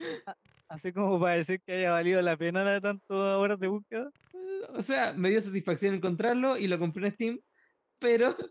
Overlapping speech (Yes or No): No